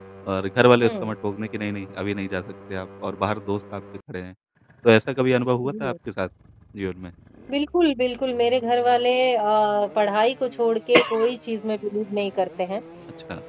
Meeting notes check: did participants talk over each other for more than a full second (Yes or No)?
No